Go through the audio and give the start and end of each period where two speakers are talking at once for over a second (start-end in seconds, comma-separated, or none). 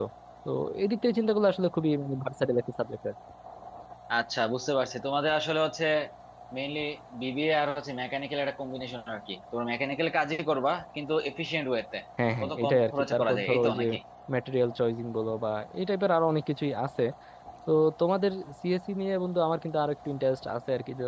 12.4-13.8